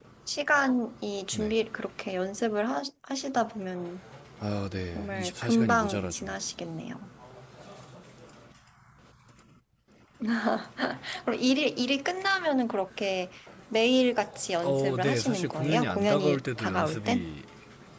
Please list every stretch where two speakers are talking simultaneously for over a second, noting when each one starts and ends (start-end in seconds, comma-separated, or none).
5.0-6.2, 14.6-17.2